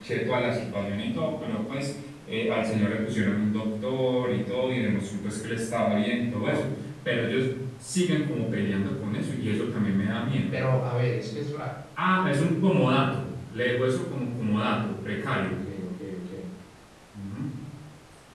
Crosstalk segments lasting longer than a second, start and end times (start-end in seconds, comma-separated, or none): none